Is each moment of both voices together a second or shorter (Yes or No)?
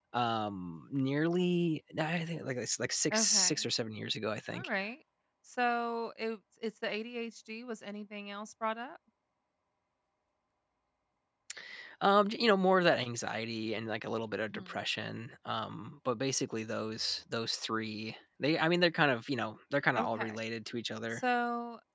Yes